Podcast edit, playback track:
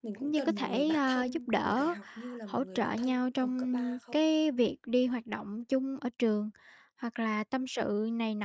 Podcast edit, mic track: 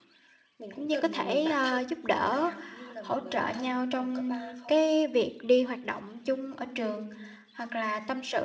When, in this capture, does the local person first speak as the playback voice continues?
none

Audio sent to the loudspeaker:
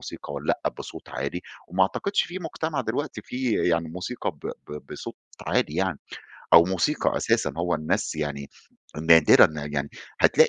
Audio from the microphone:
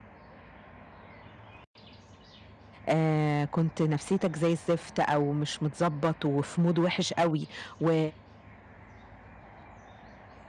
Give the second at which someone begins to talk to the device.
2.9 s

